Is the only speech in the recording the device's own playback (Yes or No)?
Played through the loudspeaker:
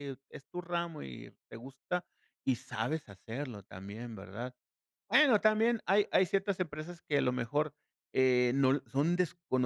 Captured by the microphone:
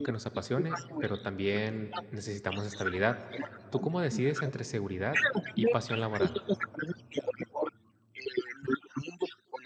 No